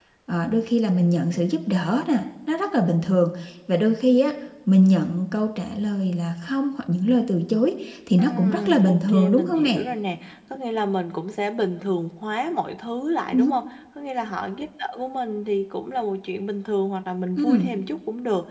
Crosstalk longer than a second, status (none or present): present